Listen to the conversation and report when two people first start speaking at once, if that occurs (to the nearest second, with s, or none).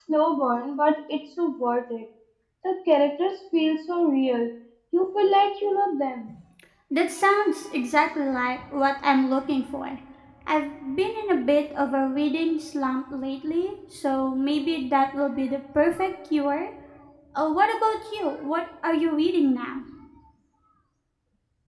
none